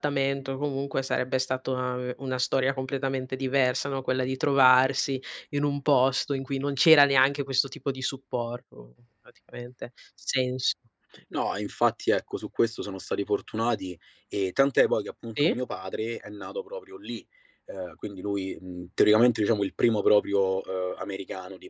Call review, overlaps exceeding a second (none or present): none